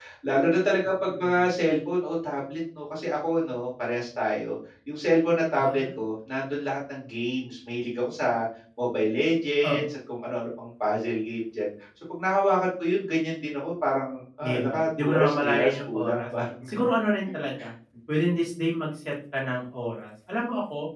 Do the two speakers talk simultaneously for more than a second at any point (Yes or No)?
Yes